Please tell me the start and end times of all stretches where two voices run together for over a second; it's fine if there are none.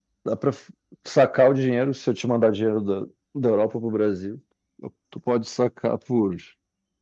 none

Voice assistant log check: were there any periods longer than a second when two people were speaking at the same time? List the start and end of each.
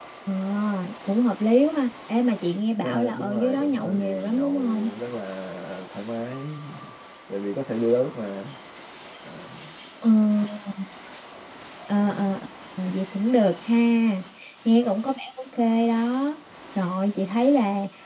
2.8-4.9

